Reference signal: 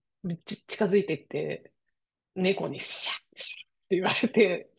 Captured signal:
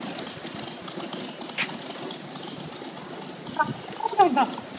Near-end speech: present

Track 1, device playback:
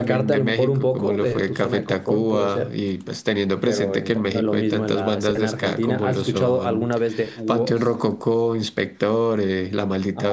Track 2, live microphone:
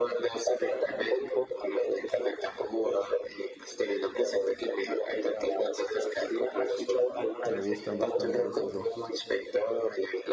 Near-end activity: present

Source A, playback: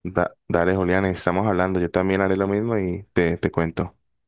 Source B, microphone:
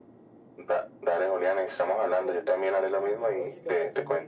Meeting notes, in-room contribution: present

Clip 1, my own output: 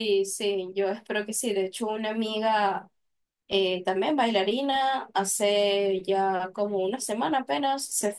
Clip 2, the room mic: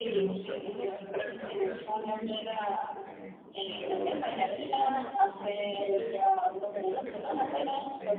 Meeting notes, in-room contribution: present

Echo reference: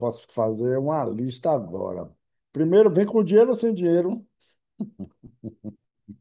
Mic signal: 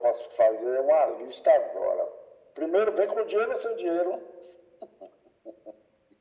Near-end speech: none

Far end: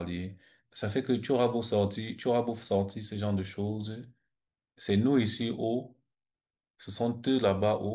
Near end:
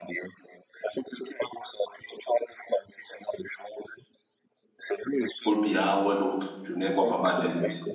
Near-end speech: present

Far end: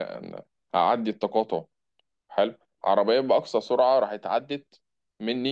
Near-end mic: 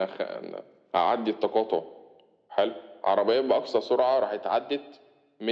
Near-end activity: none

